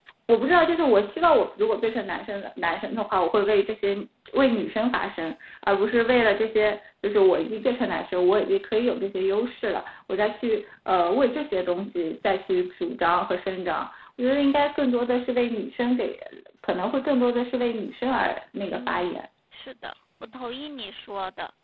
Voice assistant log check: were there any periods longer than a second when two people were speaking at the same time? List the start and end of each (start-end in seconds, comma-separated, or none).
none